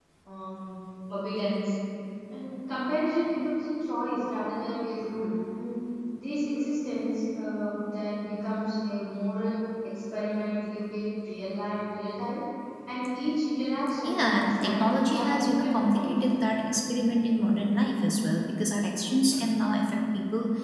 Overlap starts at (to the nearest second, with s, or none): 14 s